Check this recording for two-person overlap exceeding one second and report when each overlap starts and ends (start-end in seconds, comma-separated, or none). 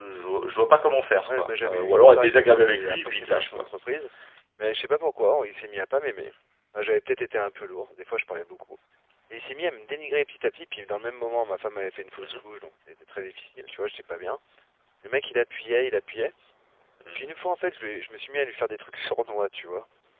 1.3-3.6